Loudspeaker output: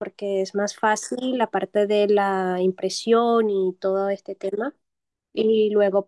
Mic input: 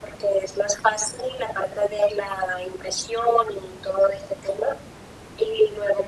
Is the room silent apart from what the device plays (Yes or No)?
Yes